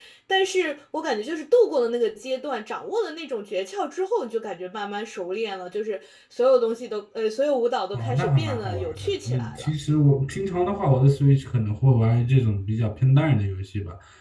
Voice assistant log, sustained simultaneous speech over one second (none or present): present